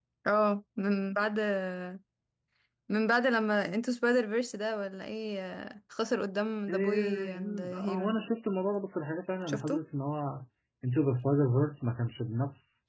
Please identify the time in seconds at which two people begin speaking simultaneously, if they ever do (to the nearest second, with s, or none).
7 s